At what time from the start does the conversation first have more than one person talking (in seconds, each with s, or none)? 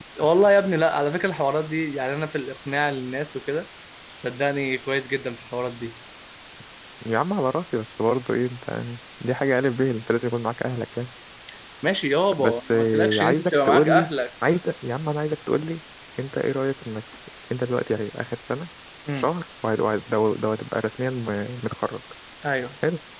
12.4 s